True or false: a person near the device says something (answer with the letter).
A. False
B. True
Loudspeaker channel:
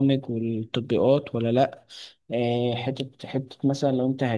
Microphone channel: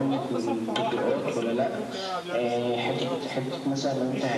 B